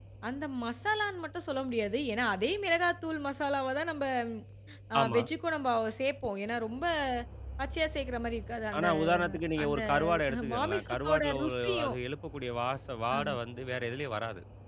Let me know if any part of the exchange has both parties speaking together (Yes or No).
Yes